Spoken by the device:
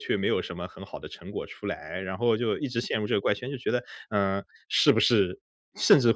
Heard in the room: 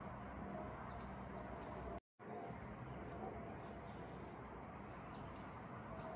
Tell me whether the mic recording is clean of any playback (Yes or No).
Yes